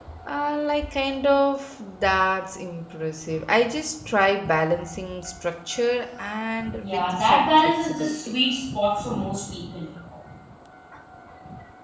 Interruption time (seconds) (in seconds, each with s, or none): 6.8 s